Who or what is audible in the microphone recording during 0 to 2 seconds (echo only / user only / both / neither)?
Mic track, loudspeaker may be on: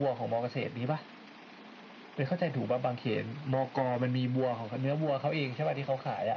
echo only